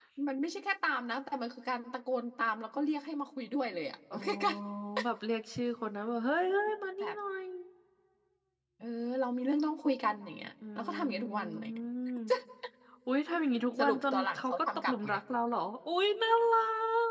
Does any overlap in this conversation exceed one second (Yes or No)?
Yes